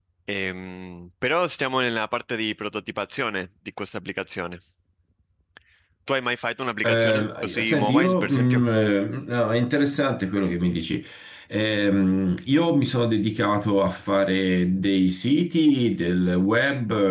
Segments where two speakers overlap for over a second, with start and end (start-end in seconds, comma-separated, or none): 6.8-8.6